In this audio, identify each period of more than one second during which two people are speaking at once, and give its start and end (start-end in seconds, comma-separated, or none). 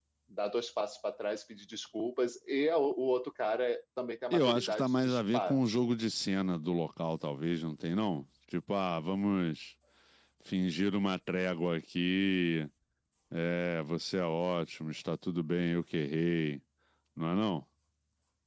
4.3-5.6